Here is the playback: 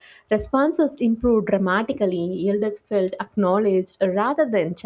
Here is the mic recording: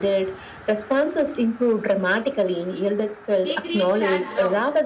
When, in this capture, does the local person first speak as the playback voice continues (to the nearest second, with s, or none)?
3 s